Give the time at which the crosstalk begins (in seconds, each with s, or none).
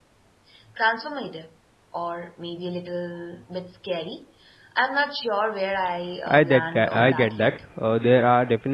6.3 s